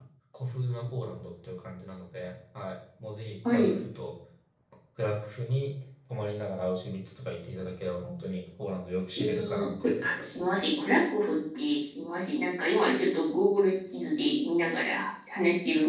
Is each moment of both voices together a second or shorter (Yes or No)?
No